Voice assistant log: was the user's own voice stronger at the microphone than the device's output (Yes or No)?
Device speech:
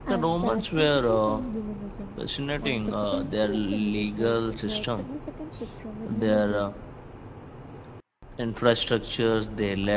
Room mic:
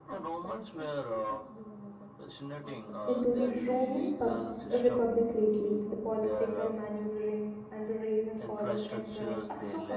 Yes